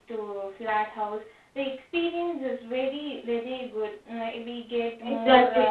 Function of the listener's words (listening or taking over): taking over